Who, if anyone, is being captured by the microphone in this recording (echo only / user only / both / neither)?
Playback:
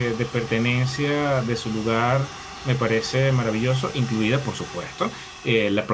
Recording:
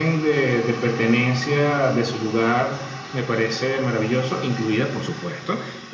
echo only